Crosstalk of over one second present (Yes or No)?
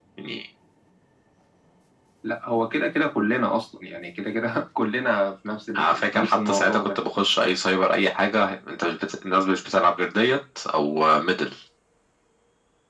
Yes